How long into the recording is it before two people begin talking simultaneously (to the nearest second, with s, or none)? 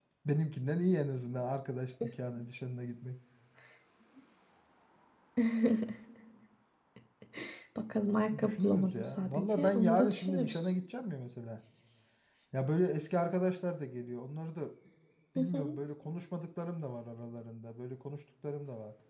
8 s